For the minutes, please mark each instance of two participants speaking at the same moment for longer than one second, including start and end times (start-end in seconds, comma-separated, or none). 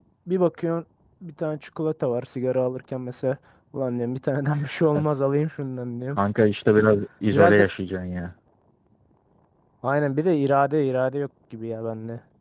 none